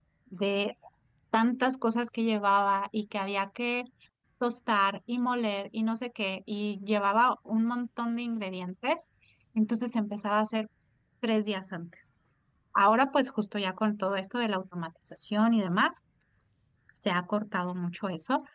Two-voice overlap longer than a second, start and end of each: none

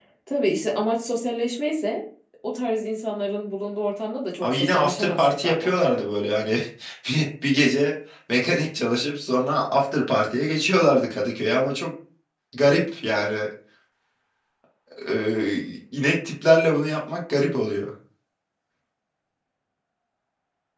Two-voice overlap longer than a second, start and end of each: 4.4-5.7

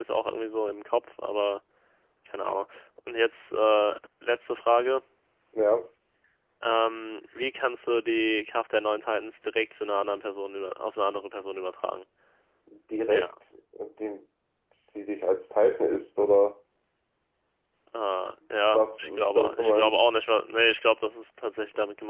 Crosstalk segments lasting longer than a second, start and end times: 18.7-19.9

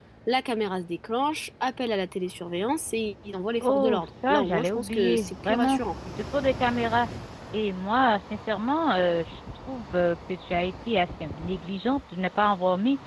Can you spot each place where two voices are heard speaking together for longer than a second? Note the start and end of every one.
3.6-5.8

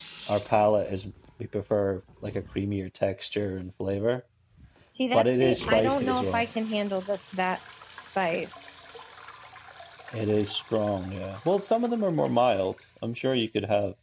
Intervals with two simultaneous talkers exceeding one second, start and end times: 5.1-6.5

